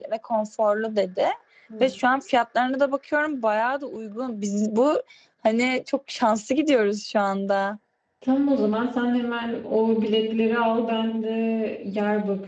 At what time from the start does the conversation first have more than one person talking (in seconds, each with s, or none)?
none